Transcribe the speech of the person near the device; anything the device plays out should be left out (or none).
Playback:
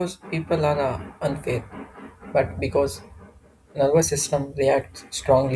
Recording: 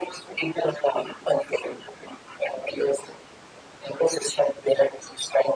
none